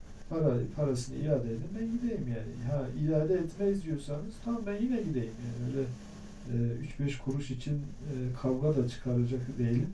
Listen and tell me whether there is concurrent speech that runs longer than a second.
No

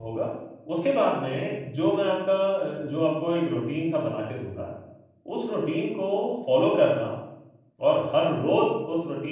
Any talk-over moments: No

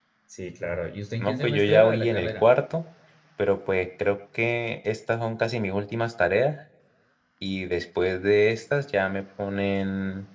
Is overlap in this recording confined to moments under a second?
No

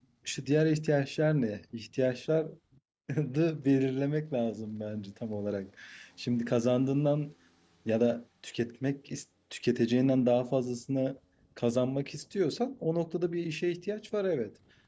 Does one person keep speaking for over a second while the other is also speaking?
No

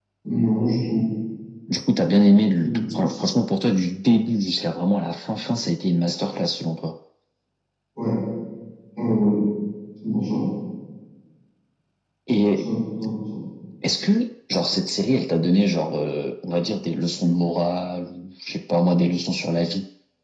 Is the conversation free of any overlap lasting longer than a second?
Yes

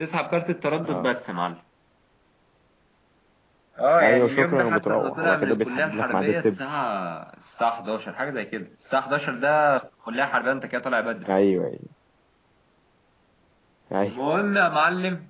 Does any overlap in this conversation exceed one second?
Yes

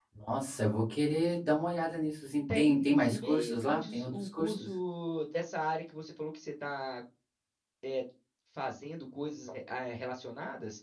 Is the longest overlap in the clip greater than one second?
Yes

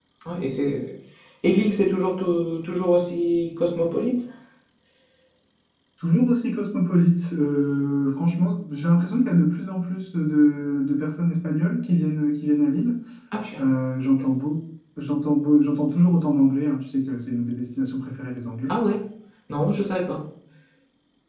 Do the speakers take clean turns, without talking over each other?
Yes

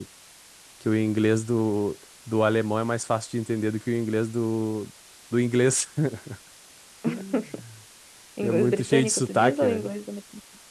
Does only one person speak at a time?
No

